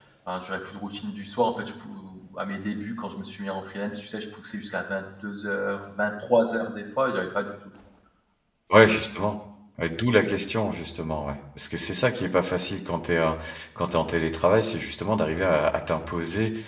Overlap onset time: none

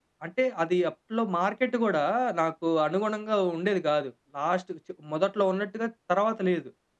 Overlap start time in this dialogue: none

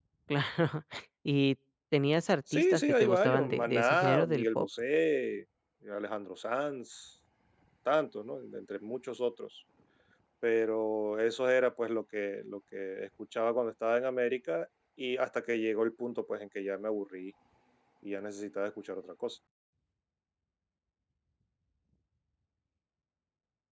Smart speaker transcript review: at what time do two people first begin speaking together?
2.5 s

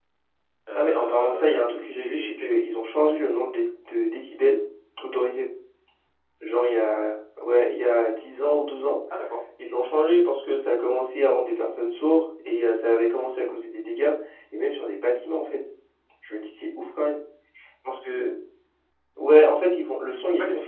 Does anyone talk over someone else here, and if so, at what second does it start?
0.8 s

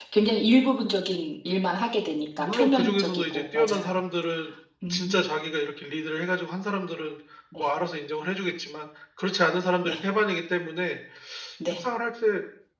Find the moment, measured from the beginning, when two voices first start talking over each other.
2.4 s

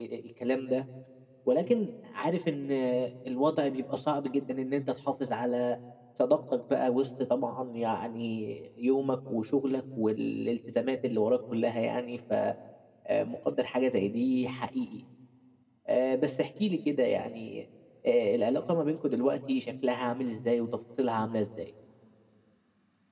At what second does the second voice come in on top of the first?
none

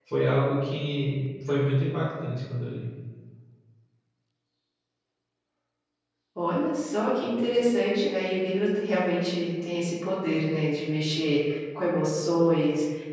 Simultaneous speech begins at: none

